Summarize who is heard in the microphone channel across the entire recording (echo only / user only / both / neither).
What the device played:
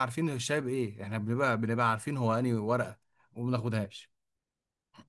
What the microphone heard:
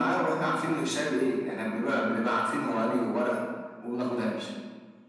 echo only